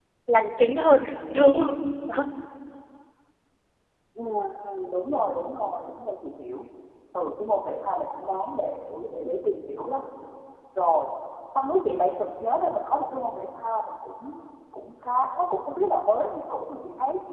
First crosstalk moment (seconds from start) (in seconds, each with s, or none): none